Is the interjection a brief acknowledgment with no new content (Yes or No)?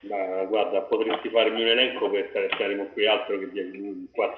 Yes